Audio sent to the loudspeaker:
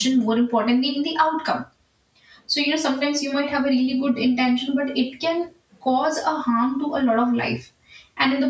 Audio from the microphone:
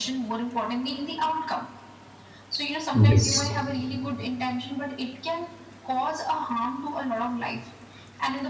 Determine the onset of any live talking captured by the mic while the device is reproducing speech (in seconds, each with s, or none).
2.9 s